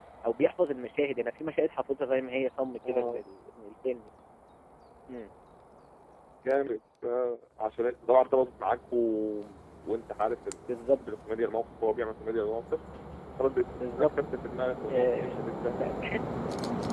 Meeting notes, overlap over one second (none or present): none